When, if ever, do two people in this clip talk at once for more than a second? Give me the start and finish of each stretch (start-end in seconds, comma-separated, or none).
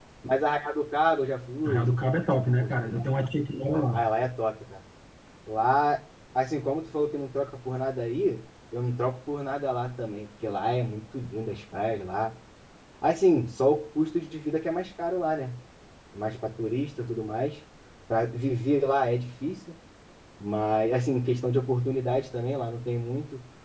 none